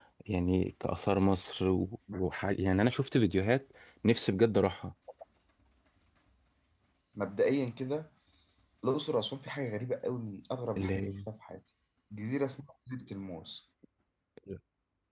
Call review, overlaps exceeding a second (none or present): none